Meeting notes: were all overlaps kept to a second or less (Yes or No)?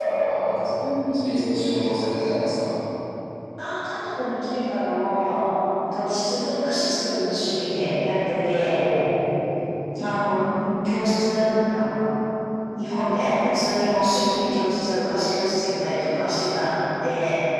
Yes